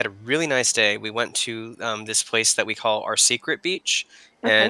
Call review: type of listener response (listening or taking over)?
listening